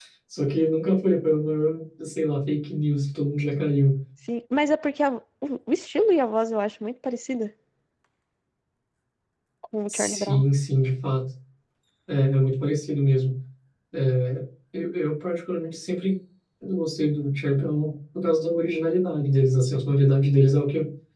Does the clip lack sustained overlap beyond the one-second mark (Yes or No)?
Yes